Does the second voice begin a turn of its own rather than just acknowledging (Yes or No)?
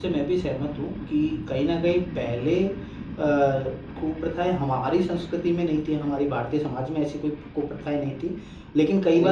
No